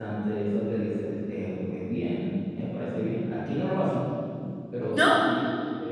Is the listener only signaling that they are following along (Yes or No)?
Yes